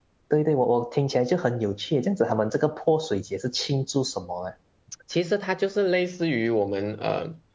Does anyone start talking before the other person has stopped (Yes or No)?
No